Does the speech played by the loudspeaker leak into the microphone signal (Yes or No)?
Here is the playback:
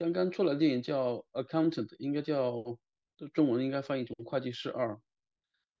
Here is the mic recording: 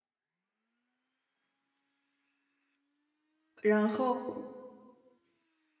No